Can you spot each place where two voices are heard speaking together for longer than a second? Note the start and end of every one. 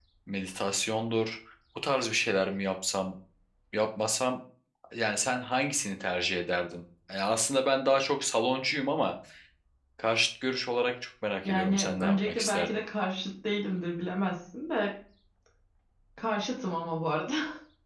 11.4-12.8

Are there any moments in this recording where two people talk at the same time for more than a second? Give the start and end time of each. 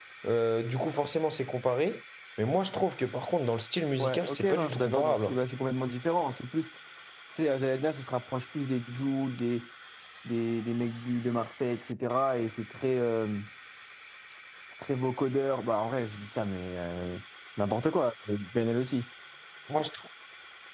4.0-5.3

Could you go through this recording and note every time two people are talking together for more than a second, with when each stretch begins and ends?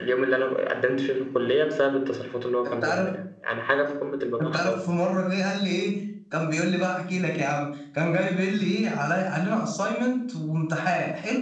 none

